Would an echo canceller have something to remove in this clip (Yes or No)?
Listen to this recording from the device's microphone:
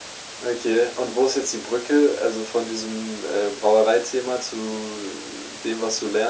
Yes